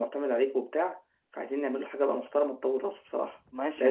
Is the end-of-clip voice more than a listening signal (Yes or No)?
Yes